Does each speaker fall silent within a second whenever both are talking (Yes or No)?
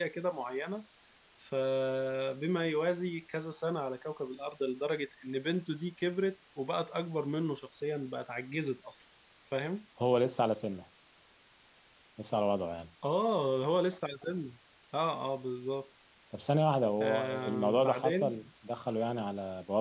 No